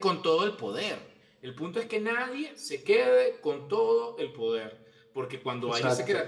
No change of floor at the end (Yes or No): Yes